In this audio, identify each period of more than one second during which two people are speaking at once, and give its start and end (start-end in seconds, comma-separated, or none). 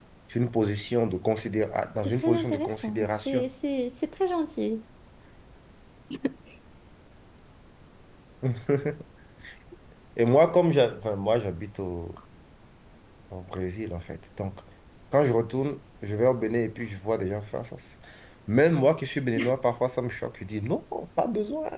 2.2-3.5